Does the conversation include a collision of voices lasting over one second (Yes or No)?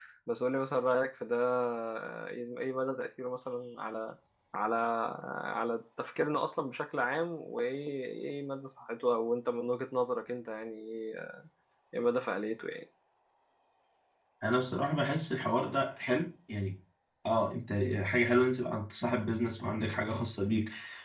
No